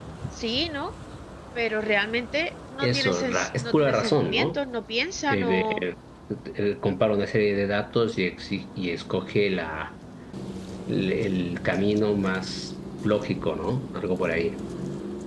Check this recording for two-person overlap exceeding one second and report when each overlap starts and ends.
2.8-4.6

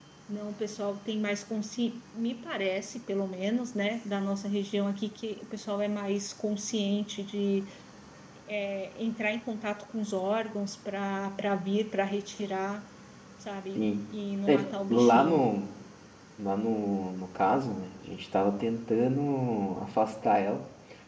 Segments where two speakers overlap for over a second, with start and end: none

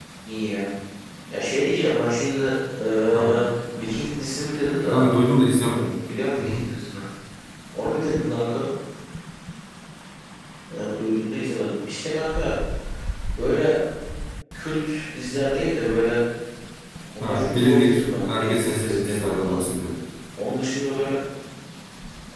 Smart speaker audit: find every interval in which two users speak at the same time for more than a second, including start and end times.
17.2-19.6

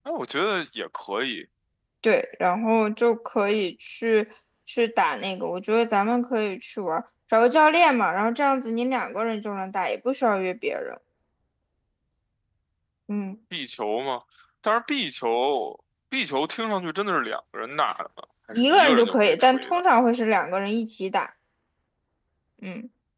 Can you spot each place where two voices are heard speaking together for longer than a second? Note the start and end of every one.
18.5-19.8

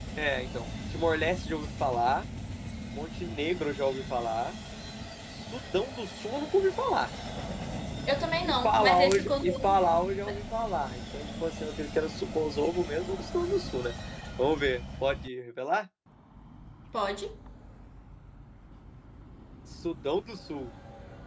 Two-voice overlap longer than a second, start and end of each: 8.4-9.8

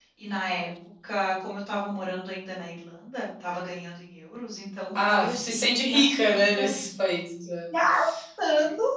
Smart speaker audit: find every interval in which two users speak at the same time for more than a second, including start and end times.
5.0-6.7

